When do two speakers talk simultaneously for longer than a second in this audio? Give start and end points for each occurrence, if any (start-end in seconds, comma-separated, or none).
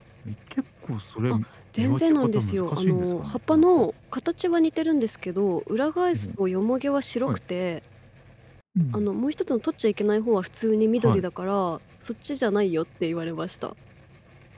1.8-3.9